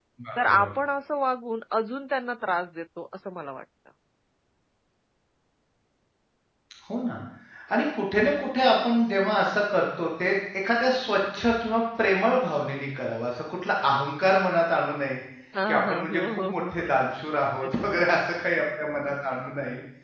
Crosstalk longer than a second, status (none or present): present